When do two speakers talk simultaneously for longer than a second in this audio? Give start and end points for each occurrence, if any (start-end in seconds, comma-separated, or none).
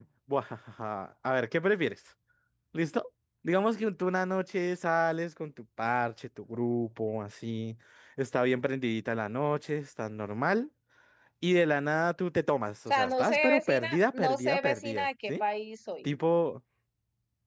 12.9-15.4